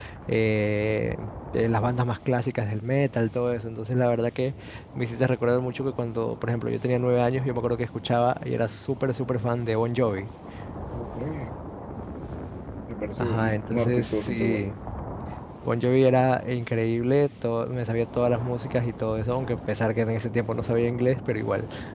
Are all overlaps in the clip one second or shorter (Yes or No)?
No